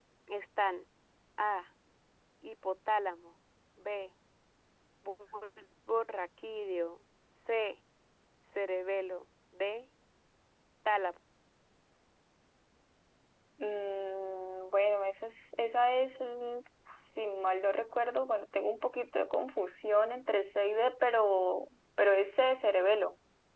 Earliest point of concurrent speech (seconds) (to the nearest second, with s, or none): none